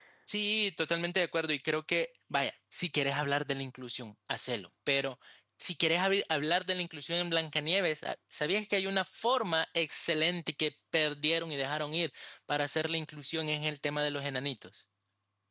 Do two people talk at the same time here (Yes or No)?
No